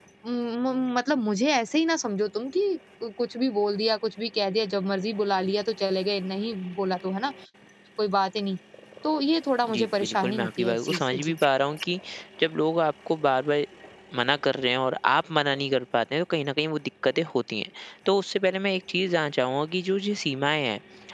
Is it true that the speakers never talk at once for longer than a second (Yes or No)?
No